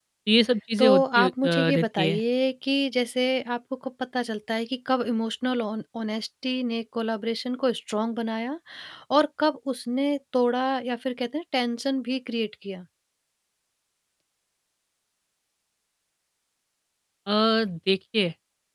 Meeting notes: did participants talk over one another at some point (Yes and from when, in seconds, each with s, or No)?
Yes, from 0.8 s